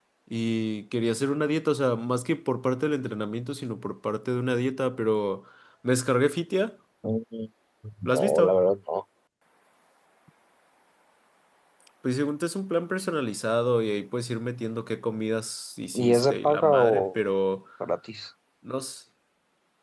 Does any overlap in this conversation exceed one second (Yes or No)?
Yes